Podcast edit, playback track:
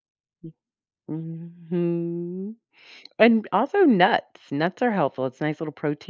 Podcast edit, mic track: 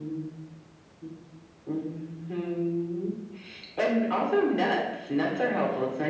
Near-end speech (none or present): none